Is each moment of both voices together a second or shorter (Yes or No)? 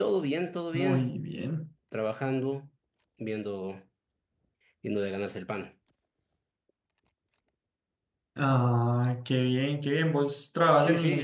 Yes